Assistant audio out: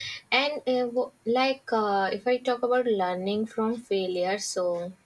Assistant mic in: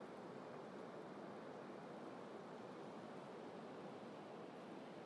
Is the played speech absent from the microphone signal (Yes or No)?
Yes